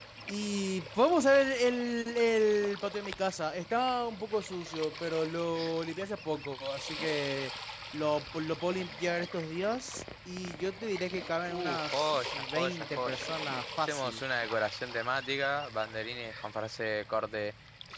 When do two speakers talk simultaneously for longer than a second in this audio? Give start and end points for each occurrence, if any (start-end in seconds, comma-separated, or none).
11.4-13.3